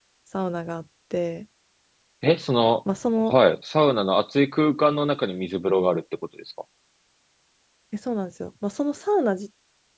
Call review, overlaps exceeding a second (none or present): none